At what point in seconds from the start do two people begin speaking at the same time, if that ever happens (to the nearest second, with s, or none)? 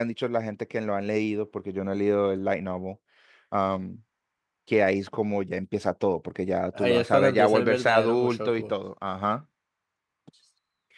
7 s